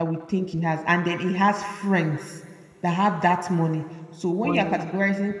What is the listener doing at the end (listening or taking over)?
listening